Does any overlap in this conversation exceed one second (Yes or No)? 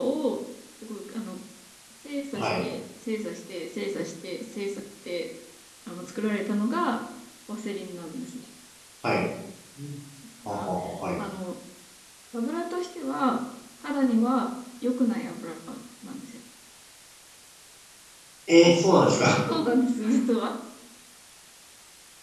No